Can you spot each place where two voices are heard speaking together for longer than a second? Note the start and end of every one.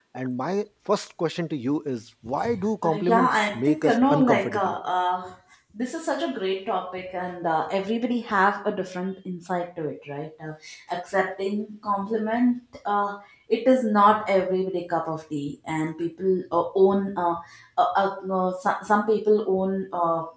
2.8-4.7

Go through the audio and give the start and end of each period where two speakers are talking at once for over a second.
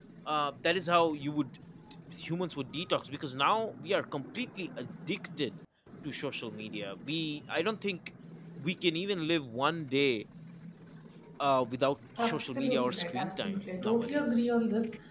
12.2-14.5

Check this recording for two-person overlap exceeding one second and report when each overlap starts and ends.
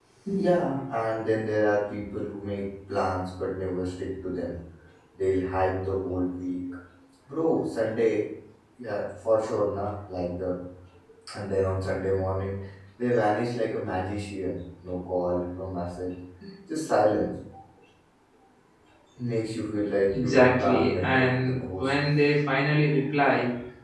20.1-22.0

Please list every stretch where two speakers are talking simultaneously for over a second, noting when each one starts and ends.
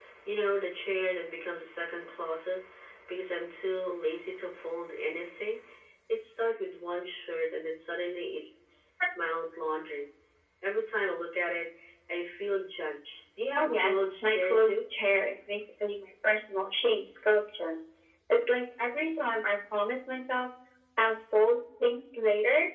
13.6-14.8

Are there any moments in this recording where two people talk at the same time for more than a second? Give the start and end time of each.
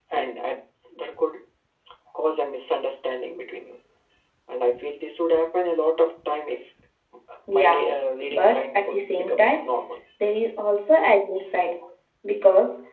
8.3-9.7

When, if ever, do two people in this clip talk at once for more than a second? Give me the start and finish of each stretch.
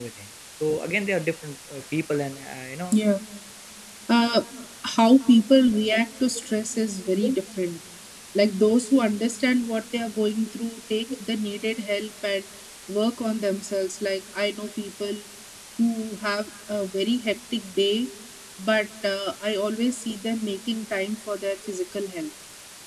none

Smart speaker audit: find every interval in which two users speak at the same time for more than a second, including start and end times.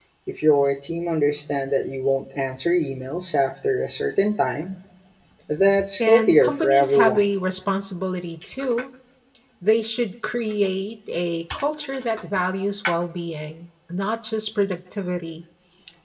6.1-7.3

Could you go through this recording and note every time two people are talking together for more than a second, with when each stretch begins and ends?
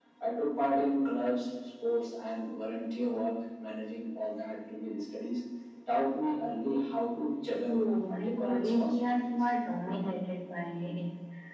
8.1-9.5

